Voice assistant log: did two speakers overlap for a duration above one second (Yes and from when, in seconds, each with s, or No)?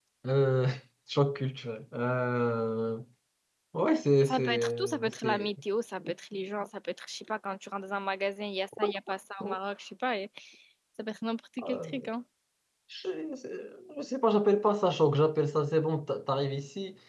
Yes, from 4.2 s